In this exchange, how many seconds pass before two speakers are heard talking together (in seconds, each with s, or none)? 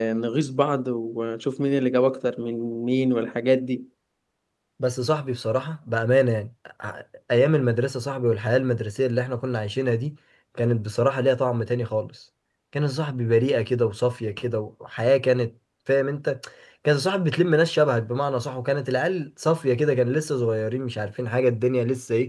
none